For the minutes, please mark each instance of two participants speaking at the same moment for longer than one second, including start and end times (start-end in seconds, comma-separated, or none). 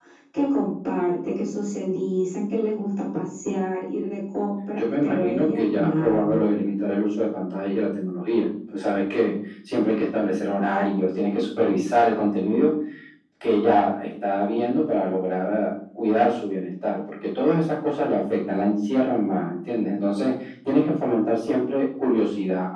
4.8-6.4